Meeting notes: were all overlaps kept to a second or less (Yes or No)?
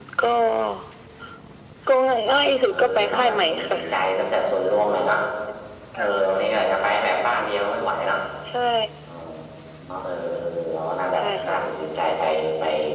No